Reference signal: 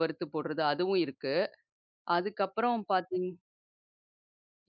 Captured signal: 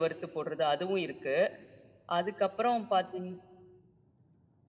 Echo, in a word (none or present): present